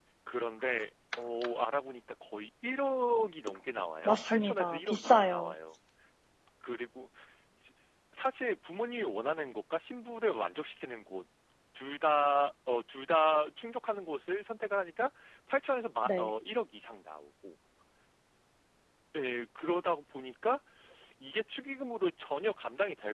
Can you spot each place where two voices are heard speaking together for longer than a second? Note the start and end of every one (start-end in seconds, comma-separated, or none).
4.0-5.5